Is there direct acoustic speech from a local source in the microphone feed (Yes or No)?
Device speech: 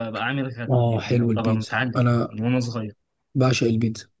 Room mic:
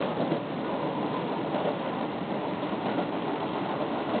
No